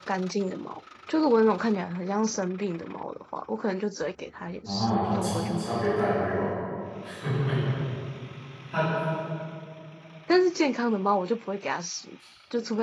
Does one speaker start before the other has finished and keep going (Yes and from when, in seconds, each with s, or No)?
Yes, from 4.7 s